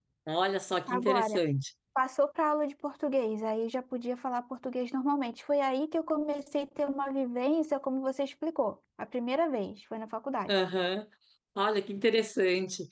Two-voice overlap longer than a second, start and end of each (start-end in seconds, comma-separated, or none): none